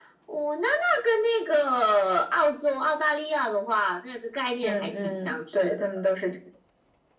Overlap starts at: 4.6 s

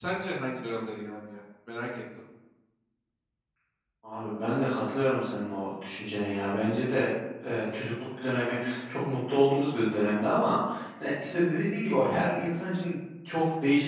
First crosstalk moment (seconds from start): none

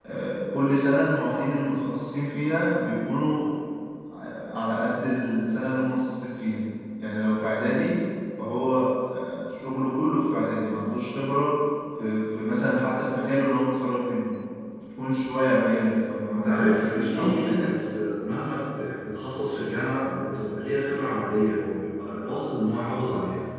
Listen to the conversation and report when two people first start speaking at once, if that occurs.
16.3 s

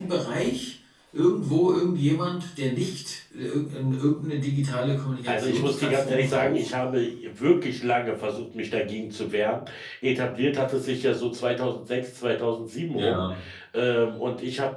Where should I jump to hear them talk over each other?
5.3 s

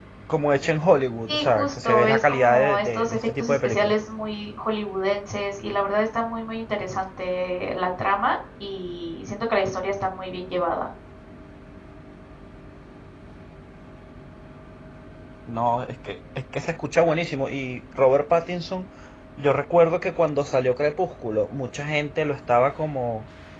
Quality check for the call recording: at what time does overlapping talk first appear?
1.3 s

